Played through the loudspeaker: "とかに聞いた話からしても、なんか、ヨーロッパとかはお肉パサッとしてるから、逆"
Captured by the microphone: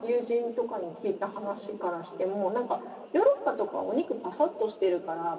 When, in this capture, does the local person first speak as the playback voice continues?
none

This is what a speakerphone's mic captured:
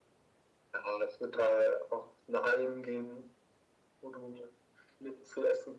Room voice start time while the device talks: none

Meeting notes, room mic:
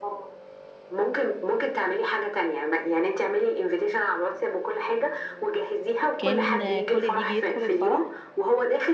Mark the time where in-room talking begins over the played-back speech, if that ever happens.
6.2 s

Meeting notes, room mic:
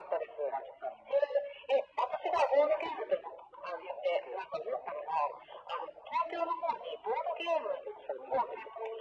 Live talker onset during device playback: none

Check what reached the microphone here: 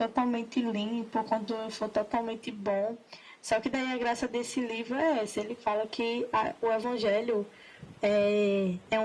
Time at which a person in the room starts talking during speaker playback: none

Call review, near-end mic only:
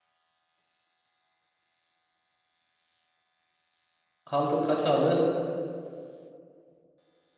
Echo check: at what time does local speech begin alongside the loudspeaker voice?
4.2 s

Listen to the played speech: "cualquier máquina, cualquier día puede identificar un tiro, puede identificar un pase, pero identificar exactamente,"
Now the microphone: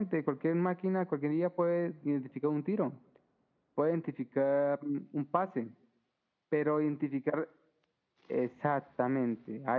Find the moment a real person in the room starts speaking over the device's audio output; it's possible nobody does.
none

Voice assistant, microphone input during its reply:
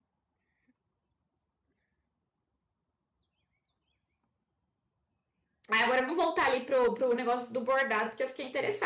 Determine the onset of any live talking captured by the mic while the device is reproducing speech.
5.7 s

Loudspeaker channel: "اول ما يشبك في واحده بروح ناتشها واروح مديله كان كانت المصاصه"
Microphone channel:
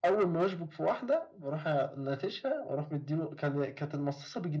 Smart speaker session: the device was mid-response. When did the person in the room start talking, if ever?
none

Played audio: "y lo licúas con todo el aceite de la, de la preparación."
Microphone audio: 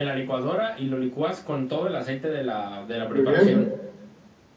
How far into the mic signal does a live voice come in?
3.1 s

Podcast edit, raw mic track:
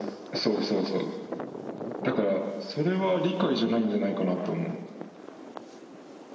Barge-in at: none

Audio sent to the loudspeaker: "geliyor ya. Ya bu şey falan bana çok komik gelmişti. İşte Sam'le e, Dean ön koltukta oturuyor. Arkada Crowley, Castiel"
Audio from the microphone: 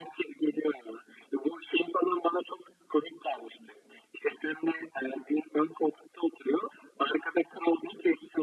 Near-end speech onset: none

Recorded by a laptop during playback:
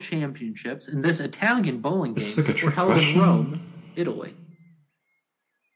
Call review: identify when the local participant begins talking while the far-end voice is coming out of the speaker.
2.1 s

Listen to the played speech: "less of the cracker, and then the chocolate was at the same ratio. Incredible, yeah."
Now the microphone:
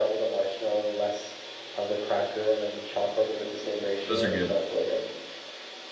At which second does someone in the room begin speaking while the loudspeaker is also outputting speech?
4.1 s

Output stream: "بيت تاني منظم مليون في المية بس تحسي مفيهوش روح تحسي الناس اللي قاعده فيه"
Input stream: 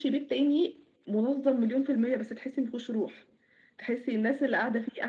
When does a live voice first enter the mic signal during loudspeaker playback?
none

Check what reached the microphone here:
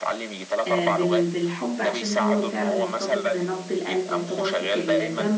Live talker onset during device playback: 0.7 s

